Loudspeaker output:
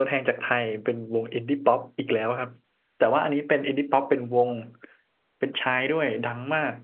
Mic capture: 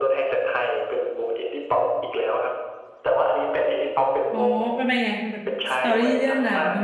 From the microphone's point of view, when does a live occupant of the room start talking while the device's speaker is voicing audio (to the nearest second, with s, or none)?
4 s